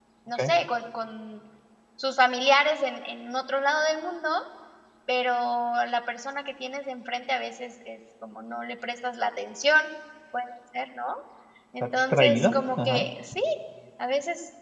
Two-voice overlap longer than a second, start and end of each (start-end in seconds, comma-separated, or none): 11.8-13.1